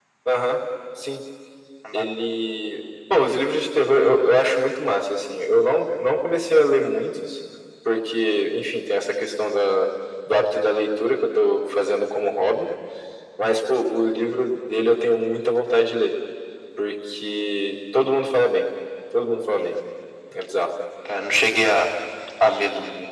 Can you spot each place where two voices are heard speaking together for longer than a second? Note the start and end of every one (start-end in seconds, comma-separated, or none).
none